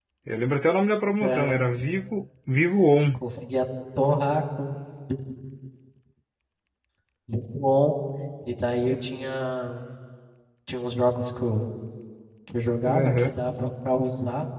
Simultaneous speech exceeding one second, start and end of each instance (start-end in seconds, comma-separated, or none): none